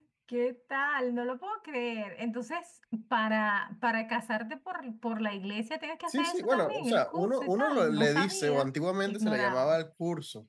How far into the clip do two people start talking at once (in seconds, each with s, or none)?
6.1 s